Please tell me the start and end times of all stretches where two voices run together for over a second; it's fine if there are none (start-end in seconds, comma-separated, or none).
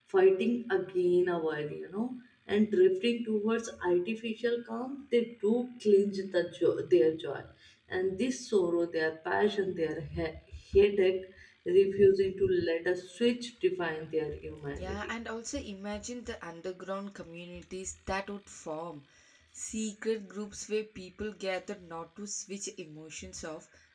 none